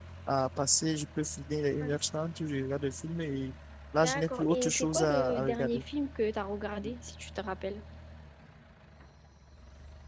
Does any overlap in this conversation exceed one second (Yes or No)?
Yes